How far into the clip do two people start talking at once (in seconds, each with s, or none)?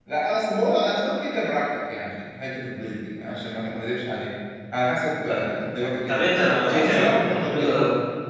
6.1 s